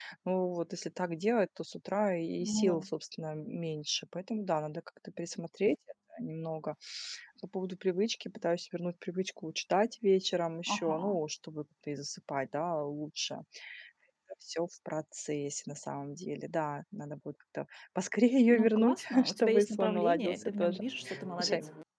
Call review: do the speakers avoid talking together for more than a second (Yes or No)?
No